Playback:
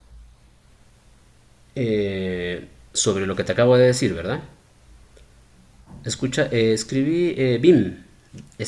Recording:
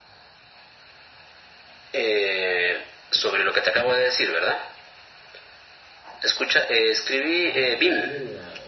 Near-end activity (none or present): present